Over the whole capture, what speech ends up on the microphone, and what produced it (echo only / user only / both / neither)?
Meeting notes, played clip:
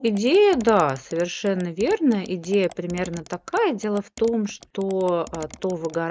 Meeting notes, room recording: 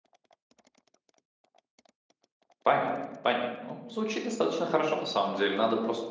user only